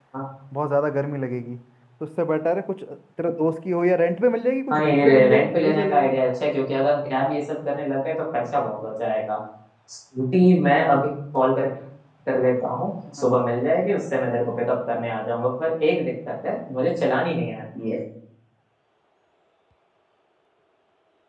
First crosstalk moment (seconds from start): 5 s

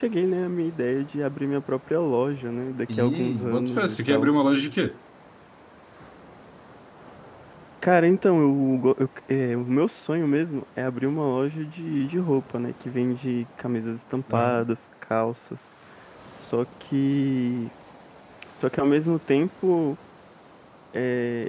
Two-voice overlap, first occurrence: 3 s

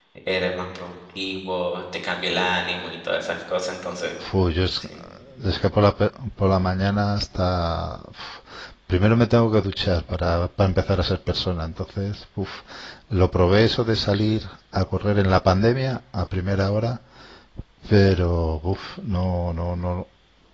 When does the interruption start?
none

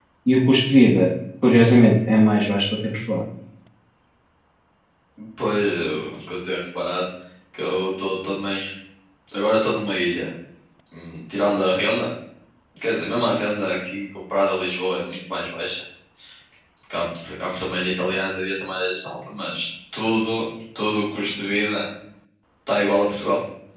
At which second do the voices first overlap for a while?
none

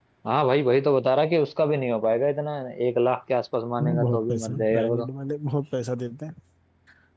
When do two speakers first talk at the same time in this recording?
4 s

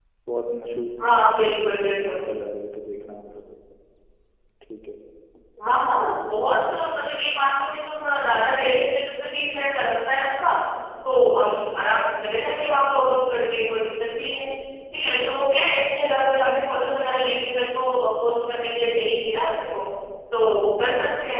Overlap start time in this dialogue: none

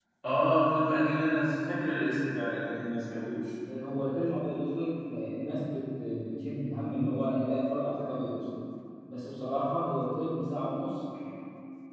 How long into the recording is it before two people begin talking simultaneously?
none

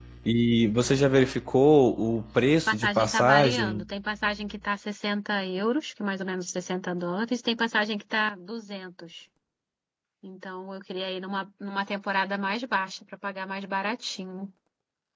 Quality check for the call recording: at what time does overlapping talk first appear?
3 s

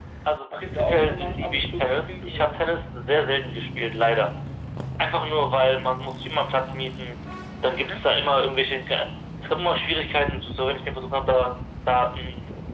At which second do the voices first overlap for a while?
1 s

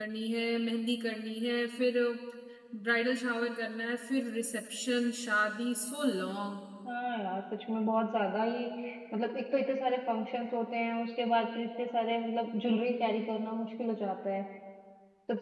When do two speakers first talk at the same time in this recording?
none

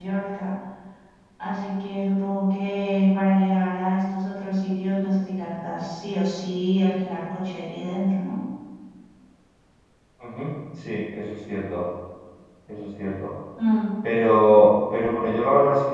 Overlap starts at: none

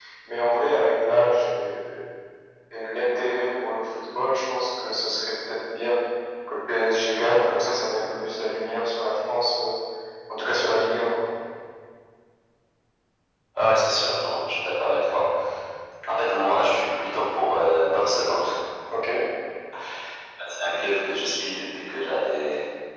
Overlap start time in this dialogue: none

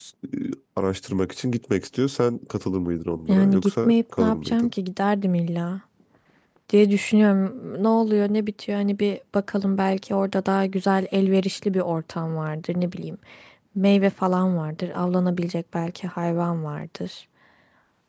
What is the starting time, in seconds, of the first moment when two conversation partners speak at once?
3 s

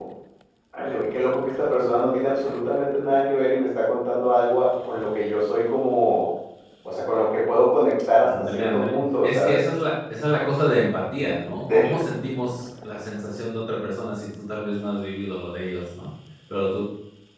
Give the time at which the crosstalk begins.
8 s

